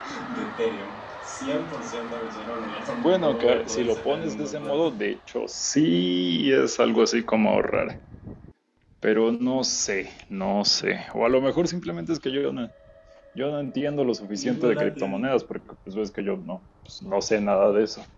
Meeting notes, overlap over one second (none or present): present